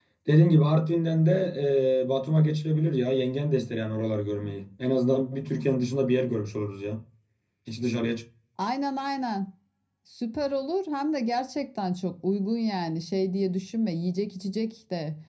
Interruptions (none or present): none